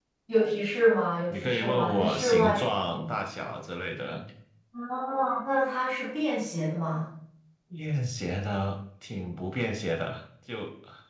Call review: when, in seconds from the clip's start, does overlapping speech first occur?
1.3 s

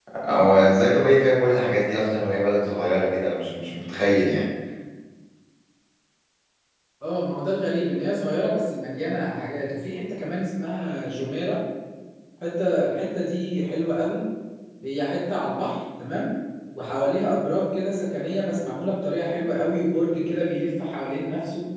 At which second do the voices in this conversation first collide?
none

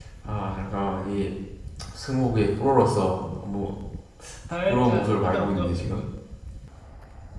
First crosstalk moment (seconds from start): 4.7 s

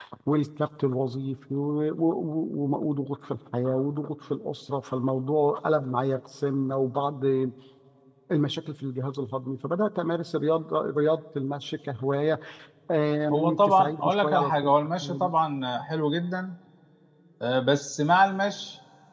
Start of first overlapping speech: 13.3 s

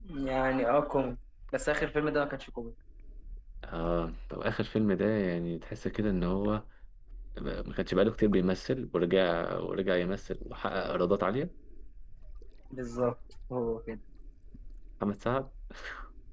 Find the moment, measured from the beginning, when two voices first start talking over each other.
none

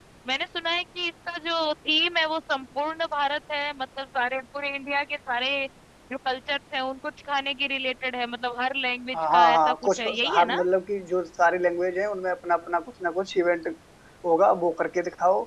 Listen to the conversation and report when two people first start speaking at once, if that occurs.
9.1 s

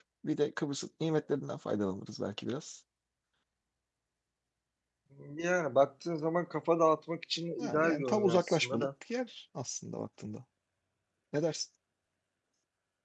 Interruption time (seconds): 7.6 s

